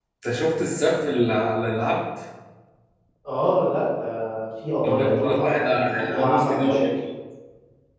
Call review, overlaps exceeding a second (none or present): present